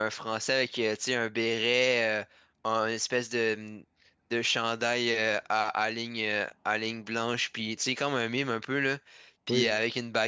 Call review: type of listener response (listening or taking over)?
listening